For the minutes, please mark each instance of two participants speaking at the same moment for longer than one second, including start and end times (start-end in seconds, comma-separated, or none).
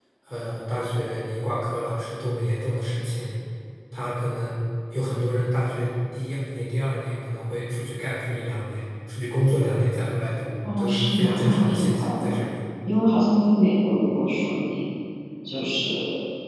10.8-12.4